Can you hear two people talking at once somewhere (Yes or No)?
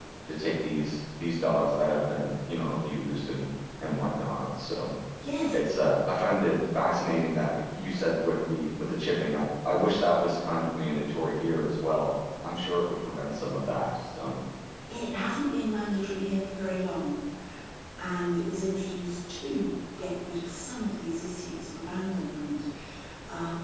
No